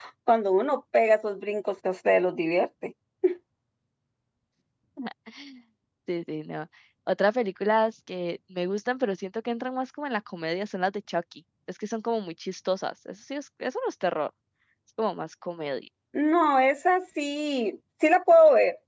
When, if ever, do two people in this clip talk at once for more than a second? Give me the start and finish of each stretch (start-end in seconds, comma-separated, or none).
none